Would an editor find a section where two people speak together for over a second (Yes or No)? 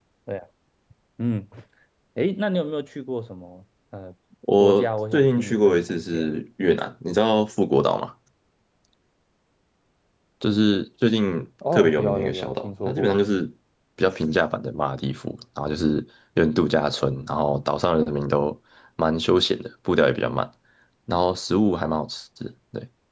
Yes